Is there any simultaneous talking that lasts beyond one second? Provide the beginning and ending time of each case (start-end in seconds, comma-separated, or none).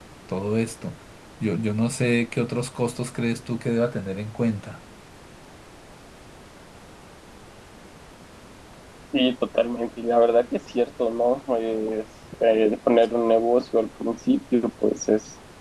none